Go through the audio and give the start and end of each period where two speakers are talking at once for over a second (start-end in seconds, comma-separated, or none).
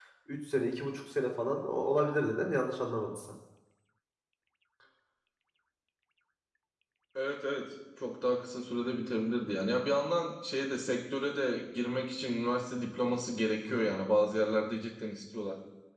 none